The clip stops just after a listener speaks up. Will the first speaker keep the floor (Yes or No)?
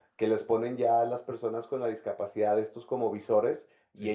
Yes